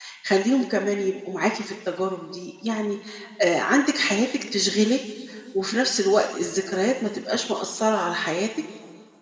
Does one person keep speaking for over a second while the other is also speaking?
No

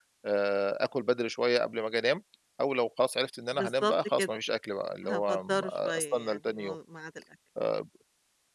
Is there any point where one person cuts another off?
Yes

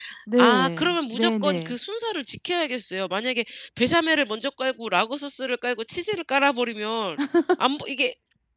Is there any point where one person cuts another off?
Yes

